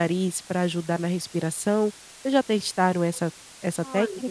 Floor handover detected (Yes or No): Yes